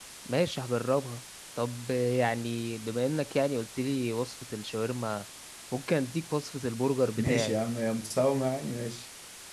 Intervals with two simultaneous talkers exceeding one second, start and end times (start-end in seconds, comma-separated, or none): none